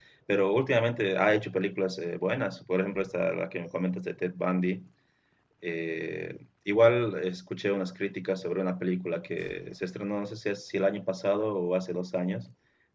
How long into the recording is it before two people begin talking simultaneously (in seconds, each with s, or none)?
none